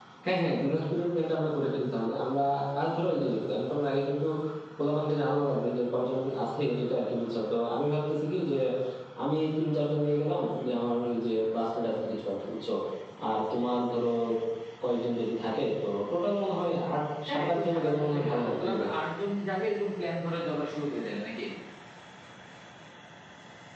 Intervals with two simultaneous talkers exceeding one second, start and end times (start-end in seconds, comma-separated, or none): 17.3-18.9